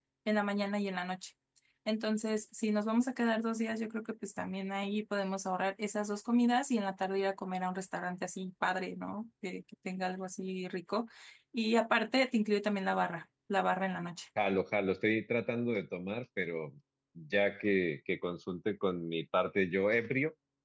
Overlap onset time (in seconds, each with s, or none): none